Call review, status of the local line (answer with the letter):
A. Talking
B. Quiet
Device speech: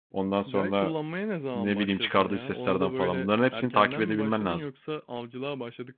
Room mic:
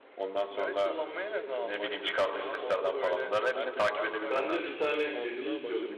A